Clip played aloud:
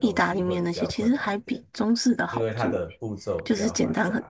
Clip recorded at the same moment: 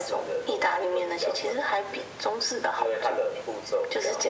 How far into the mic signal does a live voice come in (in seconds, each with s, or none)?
none